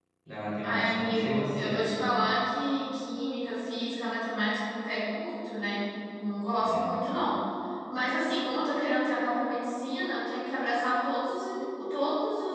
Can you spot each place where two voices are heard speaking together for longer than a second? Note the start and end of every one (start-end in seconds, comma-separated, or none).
0.6-1.8